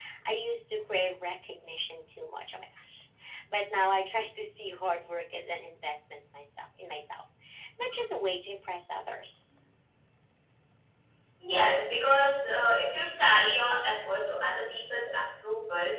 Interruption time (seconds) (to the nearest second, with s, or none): none